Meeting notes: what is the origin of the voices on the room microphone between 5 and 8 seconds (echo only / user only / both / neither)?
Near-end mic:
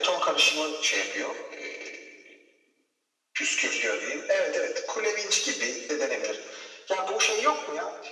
echo only